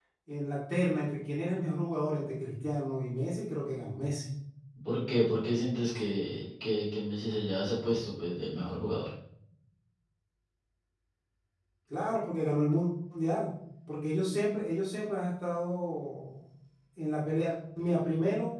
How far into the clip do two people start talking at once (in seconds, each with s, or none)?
none